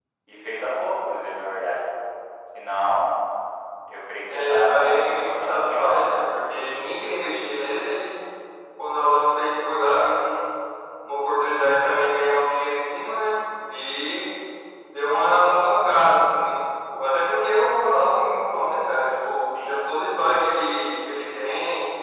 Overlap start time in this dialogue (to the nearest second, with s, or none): 4 s